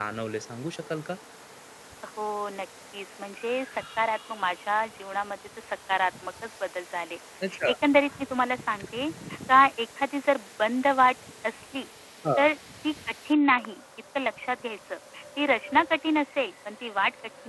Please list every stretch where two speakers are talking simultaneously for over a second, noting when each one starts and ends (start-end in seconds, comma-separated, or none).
none